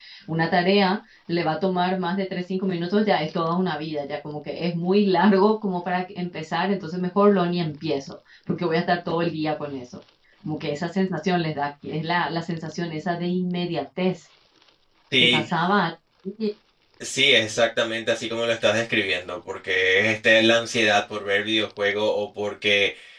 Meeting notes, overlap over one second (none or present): none